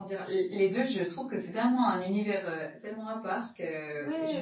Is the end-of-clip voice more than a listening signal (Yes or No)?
Yes